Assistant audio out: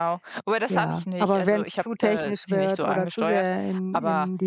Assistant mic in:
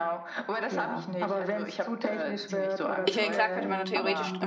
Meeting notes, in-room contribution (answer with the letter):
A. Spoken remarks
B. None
A